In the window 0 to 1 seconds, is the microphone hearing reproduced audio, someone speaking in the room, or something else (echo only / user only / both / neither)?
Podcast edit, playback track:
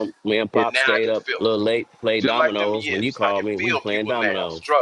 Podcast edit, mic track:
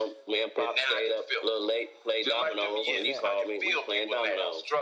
echo only